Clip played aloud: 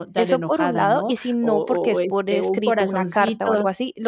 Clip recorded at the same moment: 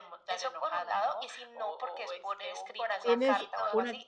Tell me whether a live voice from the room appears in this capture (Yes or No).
Yes